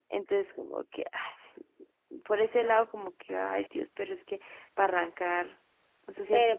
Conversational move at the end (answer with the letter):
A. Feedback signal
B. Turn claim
B